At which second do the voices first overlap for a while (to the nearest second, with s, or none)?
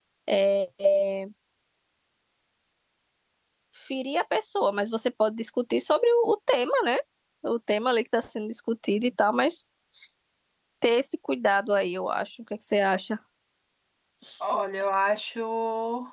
none